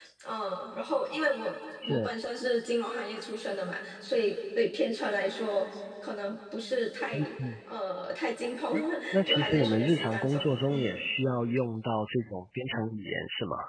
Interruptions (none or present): present